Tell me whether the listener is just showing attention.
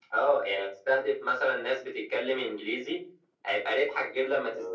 Yes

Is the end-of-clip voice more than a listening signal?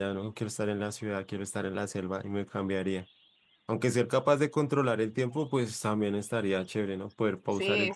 Yes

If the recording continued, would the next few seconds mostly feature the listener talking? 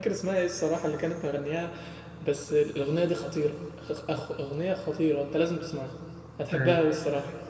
No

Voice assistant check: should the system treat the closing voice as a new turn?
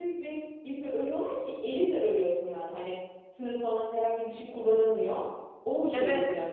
Yes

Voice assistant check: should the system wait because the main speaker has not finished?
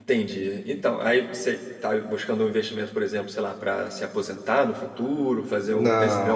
No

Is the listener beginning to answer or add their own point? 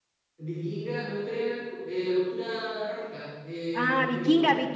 Yes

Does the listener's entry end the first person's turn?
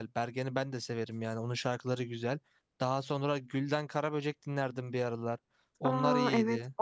Yes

